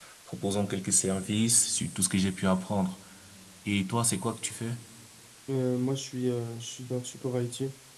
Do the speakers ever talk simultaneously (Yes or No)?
No